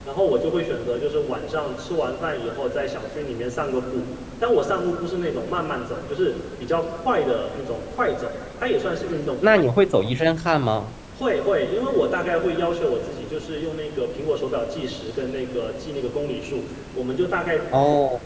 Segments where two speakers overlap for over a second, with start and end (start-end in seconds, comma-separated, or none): none